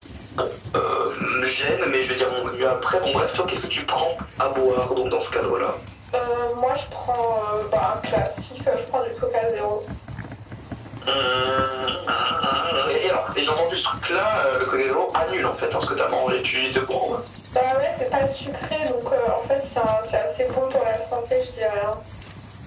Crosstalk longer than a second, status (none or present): none